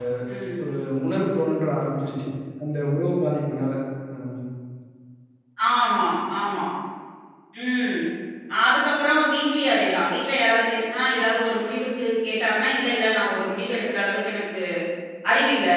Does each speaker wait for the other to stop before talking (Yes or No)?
Yes